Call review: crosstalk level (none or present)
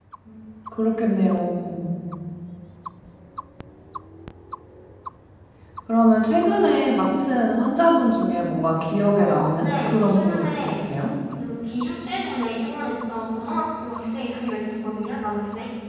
present